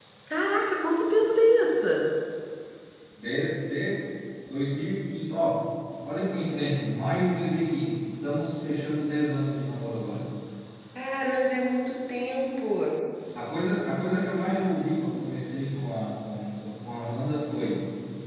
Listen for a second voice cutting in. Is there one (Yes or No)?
No